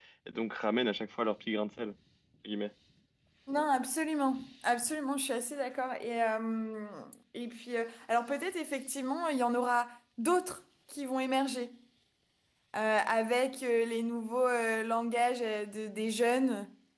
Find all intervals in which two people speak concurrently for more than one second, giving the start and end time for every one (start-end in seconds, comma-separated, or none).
none